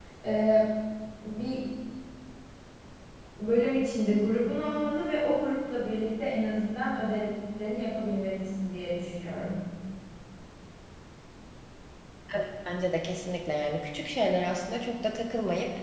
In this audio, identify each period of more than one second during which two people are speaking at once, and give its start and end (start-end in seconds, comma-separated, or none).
none